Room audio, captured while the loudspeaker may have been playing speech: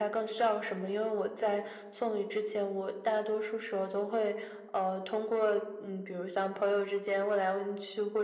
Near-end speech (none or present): none